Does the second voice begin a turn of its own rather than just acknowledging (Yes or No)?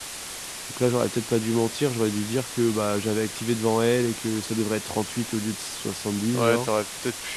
Yes